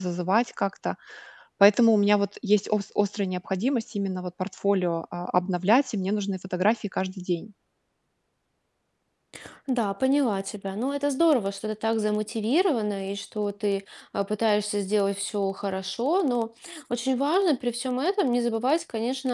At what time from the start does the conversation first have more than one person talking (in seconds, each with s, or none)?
none